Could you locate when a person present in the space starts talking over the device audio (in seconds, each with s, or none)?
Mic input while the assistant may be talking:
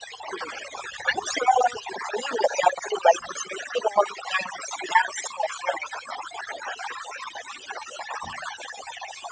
none